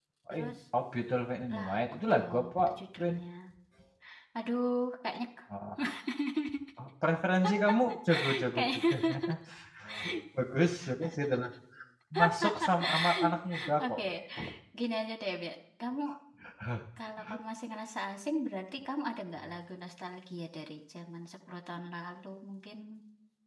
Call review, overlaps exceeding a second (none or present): present